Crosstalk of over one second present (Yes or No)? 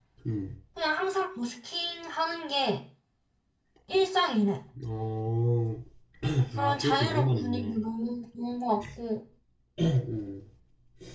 Yes